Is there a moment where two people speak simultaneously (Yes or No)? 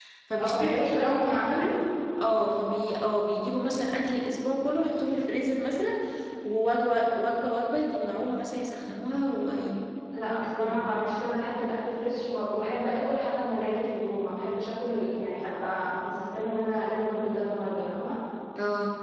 Yes